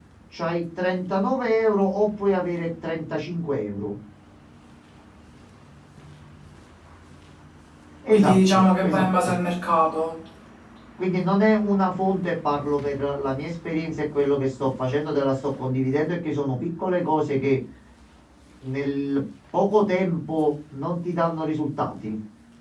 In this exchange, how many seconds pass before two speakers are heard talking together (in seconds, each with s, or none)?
8.1 s